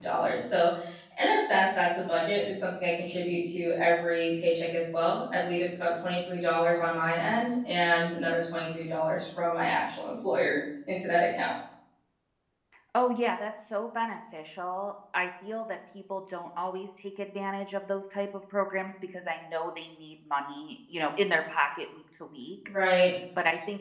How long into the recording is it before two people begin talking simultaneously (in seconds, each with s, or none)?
none